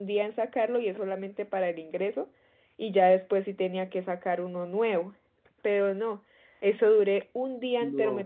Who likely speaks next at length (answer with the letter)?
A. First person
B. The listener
A